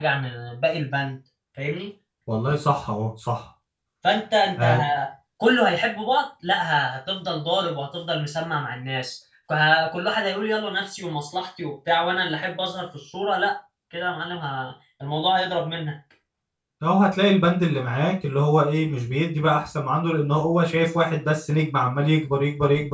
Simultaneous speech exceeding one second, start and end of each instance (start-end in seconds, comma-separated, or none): none